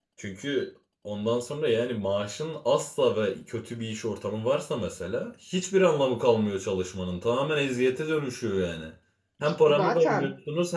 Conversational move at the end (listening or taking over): listening